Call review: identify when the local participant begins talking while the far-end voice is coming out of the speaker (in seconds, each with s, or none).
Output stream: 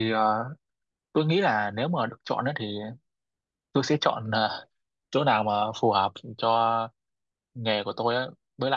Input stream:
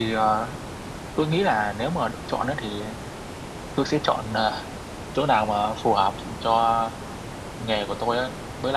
none